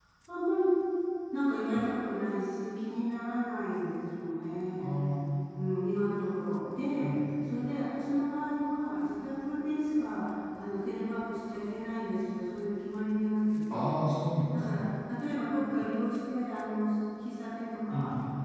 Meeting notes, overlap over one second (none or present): none